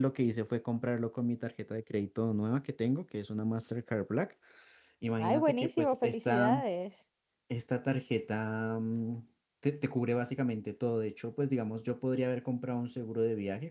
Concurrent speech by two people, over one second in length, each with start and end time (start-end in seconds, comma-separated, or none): 5.2-6.6